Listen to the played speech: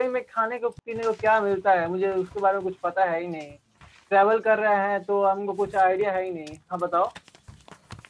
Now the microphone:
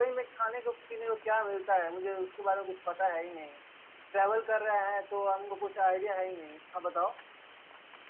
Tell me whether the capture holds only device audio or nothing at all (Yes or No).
Yes